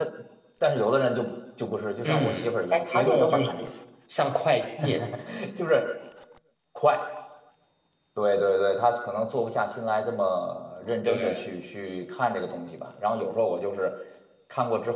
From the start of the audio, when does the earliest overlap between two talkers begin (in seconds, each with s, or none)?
2.0 s